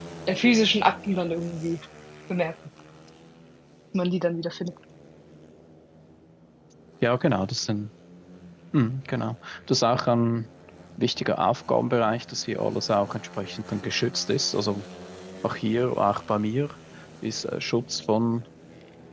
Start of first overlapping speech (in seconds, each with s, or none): none